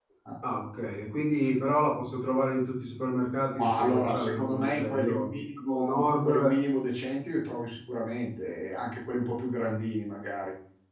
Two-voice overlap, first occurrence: 3.6 s

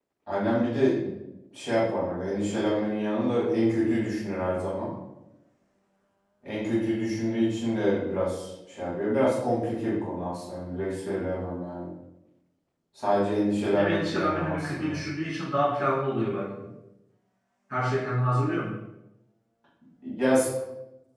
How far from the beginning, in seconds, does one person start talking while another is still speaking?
13.7 s

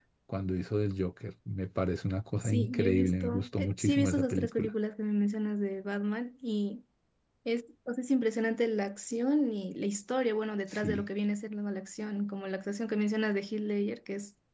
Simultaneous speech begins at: 2.4 s

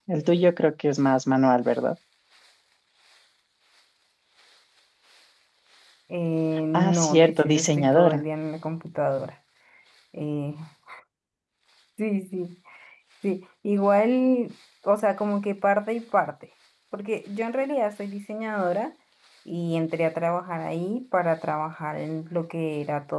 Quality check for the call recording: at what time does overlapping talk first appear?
6.7 s

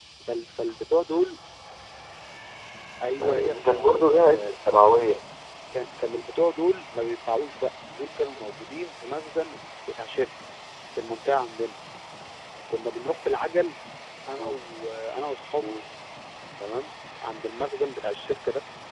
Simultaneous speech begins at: 3.2 s

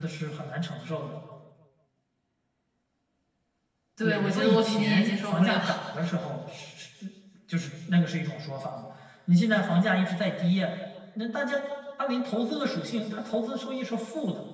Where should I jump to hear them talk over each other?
4.0 s

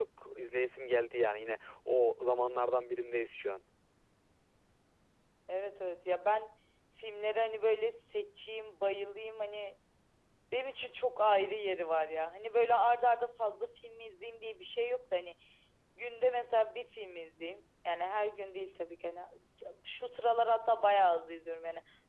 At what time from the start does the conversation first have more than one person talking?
none

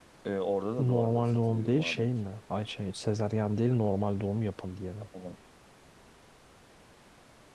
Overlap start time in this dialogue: 0.8 s

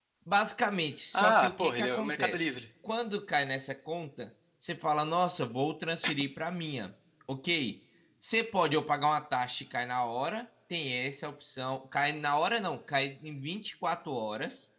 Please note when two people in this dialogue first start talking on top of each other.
1.1 s

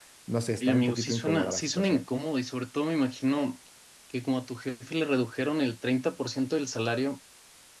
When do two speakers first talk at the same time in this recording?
0.6 s

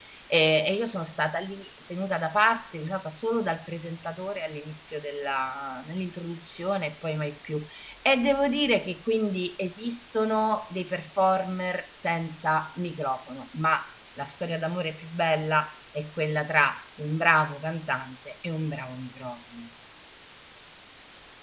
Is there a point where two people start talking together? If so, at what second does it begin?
none

